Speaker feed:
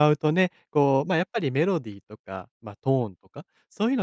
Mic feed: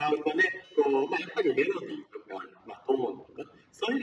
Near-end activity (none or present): none